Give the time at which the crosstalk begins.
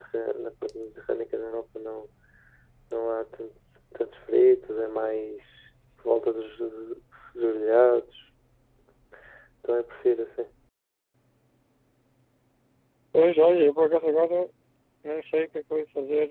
none

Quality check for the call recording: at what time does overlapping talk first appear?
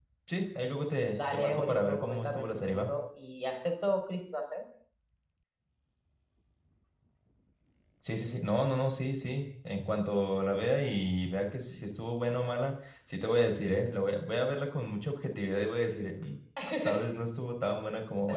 1.3 s

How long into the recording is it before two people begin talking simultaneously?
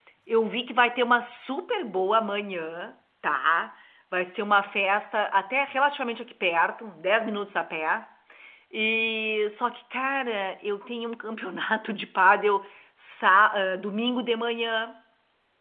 none

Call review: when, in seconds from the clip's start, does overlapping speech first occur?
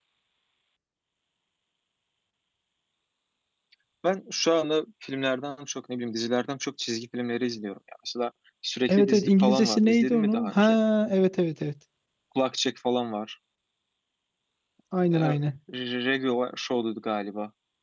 8.9 s

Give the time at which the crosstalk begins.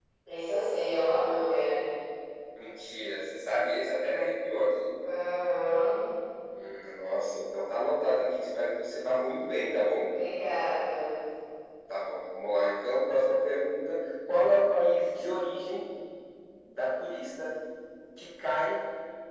none

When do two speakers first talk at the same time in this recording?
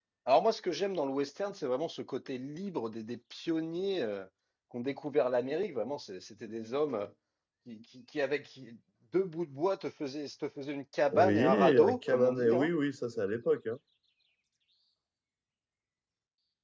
11.1 s

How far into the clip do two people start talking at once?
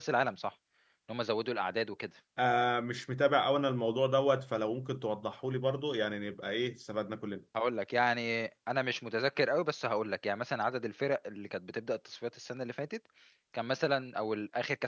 none

